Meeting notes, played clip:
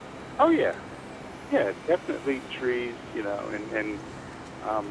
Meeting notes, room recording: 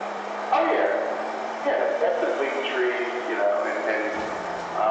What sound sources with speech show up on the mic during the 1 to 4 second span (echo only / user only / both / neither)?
echo only